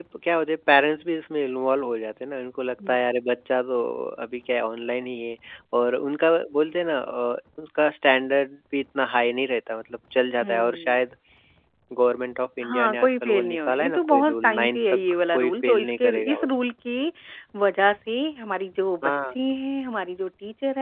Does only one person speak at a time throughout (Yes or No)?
No